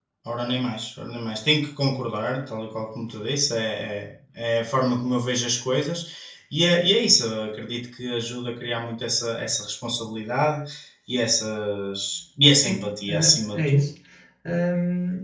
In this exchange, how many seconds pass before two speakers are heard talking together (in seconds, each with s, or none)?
12.5 s